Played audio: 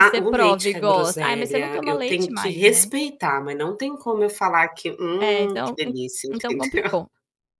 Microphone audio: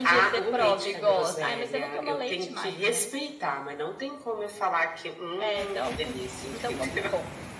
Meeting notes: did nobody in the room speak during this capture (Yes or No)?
Yes